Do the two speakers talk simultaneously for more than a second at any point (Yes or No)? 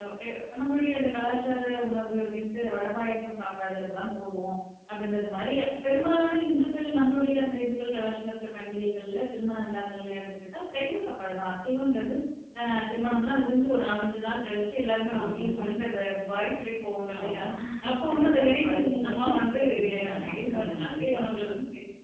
Yes